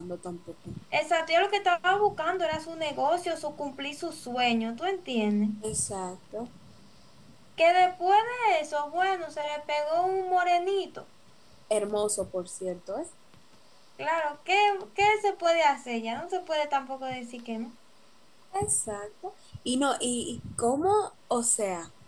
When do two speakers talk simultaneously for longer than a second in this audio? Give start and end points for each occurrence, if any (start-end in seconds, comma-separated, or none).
none